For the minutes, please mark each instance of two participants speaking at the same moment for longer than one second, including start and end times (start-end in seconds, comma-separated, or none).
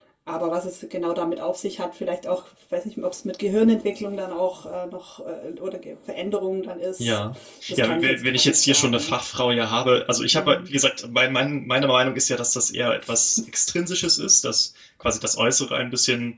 7.8-9.2